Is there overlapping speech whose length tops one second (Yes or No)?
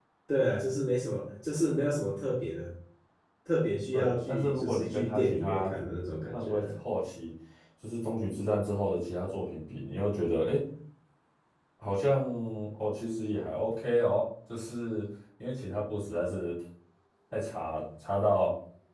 Yes